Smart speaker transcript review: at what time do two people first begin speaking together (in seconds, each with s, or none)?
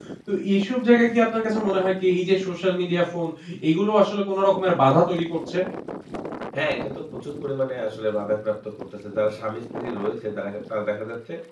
none